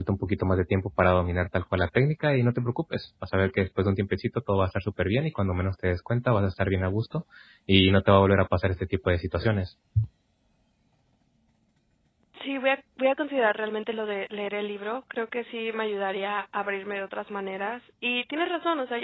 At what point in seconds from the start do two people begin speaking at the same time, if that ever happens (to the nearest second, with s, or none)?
none